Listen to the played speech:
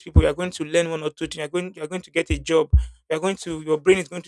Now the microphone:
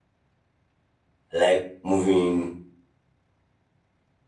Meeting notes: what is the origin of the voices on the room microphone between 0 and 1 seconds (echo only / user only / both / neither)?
neither